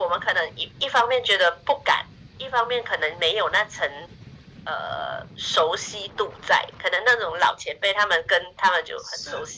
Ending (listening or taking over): listening